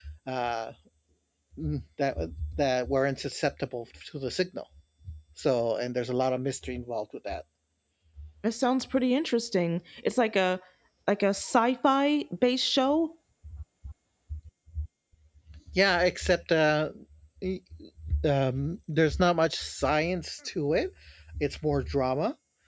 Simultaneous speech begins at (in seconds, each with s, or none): none